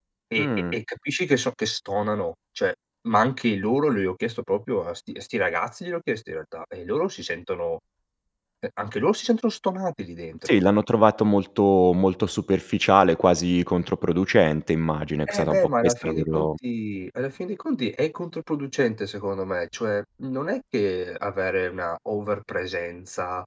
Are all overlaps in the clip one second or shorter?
No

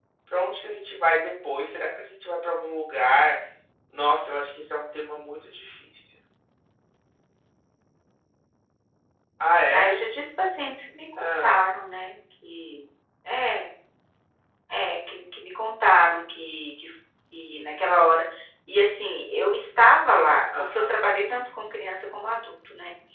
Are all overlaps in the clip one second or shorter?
Yes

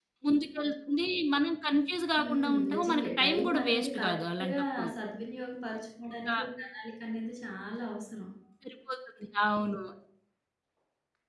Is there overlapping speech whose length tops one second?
Yes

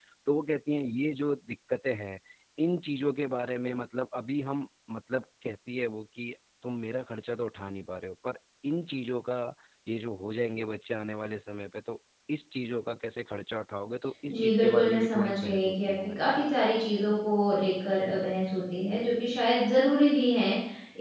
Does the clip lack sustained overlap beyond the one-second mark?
No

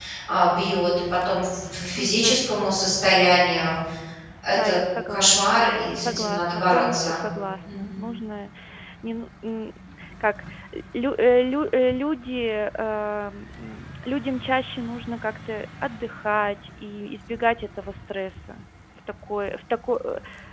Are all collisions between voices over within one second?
No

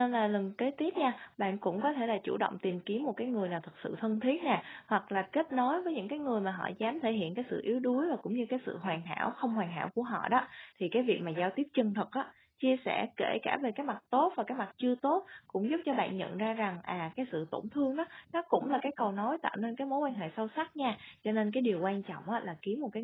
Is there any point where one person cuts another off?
No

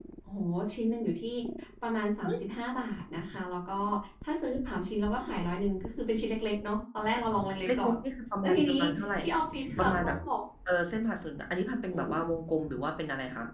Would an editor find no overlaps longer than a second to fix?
Yes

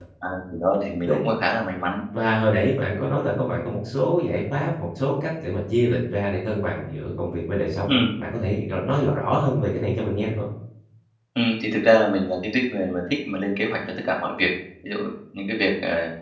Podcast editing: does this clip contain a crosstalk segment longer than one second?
No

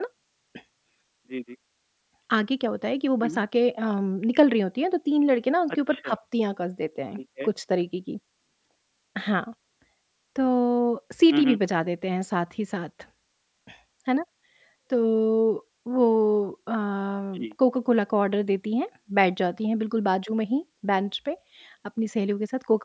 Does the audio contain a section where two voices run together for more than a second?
No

